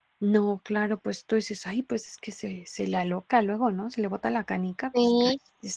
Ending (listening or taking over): taking over